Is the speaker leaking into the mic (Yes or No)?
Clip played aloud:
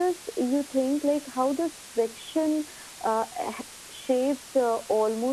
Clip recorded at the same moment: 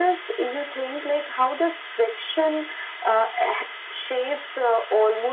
Yes